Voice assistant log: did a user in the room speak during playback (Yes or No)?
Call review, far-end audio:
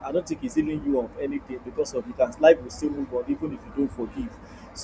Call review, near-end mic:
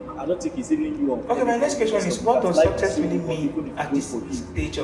Yes